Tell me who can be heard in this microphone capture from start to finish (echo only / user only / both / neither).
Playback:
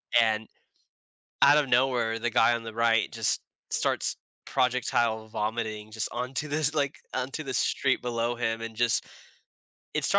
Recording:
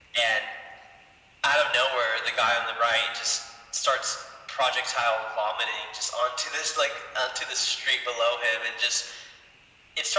echo only